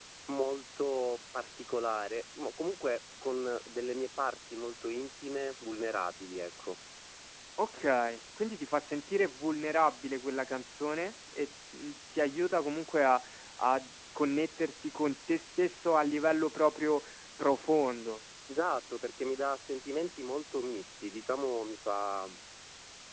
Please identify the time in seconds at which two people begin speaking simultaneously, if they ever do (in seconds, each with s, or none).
none